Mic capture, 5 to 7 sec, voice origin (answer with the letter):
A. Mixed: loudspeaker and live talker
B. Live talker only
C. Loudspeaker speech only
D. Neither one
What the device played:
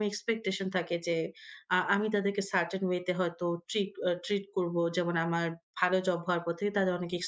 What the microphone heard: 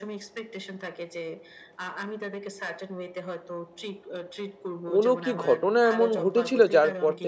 A